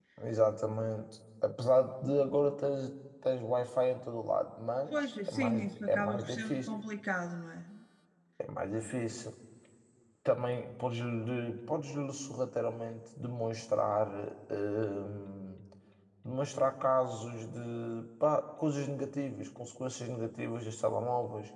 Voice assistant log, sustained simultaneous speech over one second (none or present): present